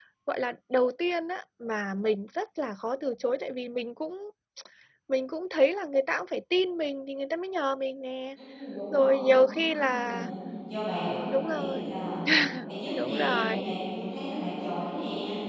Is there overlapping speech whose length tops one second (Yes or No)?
Yes